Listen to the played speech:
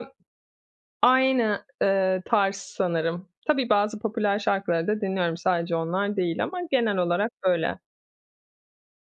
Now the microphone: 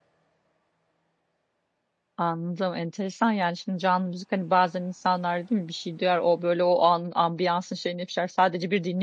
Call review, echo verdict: none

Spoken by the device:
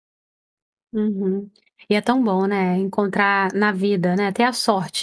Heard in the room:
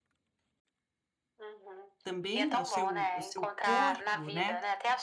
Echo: present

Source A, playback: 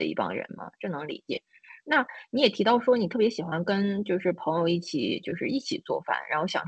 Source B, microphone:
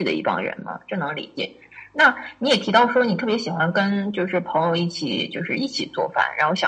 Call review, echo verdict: present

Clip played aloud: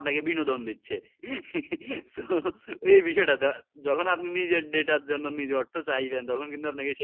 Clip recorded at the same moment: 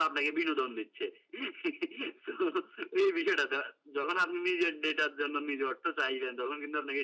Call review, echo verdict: present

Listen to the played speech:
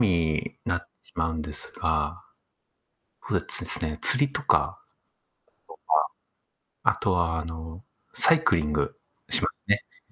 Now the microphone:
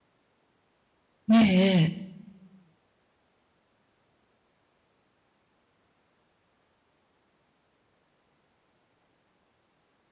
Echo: none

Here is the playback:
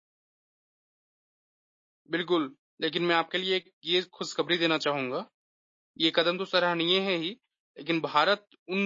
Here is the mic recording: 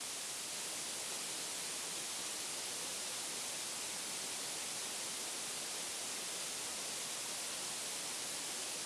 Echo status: none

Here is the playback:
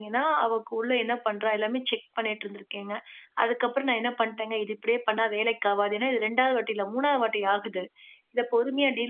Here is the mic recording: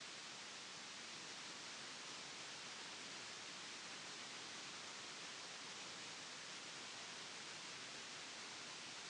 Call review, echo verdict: none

